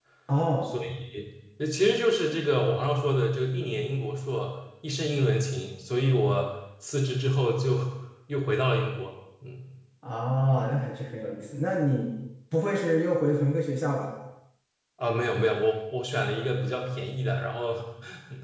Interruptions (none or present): none